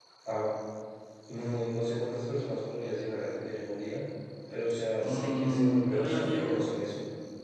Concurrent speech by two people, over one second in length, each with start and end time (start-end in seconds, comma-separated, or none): 5.0-6.7